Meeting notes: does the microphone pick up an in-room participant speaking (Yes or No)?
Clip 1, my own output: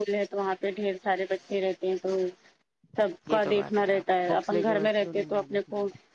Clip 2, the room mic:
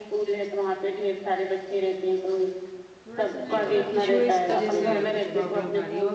Yes